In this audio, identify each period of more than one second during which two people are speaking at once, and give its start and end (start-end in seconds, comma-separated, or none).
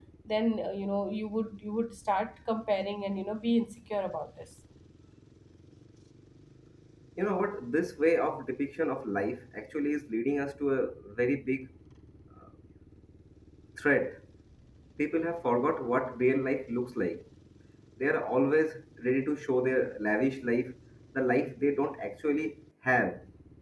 none